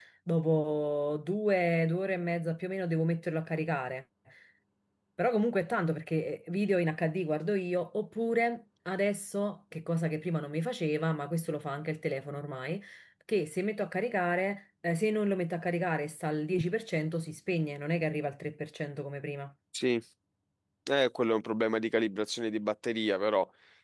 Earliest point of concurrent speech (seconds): none

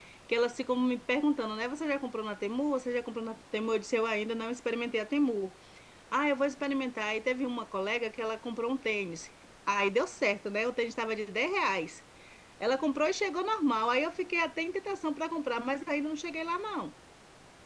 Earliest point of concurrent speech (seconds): none

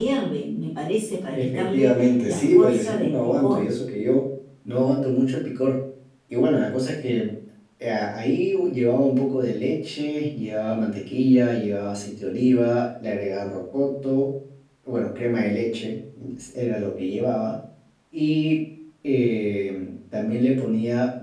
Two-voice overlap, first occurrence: 1.4 s

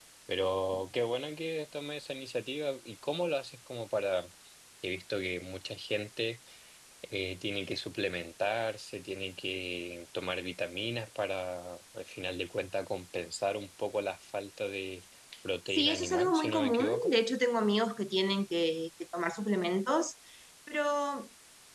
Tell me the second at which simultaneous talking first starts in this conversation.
15.7 s

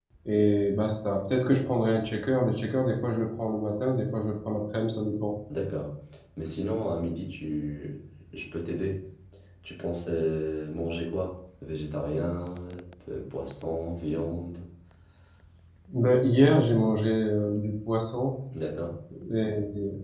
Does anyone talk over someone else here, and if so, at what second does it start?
none

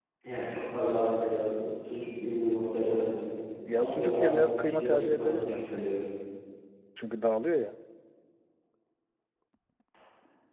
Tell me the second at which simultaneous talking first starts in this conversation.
3.7 s

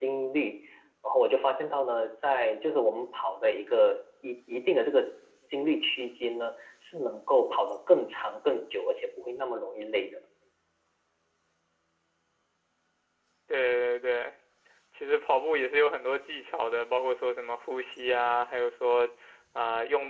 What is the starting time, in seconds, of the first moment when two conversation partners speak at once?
none

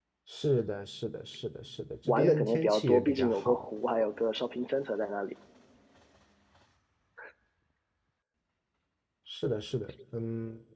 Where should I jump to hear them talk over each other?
2.0 s

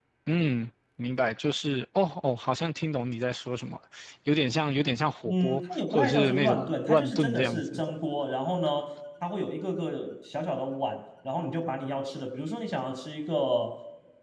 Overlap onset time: 5.2 s

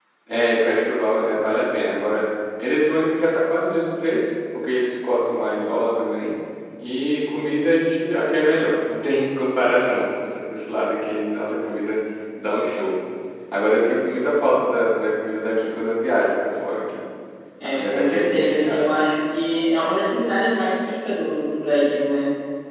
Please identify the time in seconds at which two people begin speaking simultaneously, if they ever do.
17.6 s

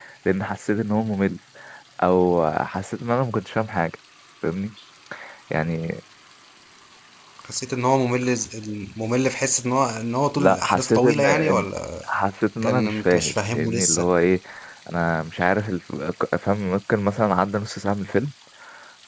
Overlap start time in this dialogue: 10.4 s

